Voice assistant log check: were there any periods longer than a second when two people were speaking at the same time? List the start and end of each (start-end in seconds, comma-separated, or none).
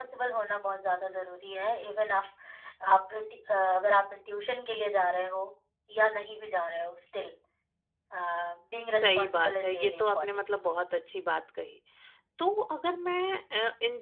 9.0-10.5